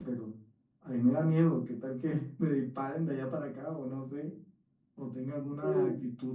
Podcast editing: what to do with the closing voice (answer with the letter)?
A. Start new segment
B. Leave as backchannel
B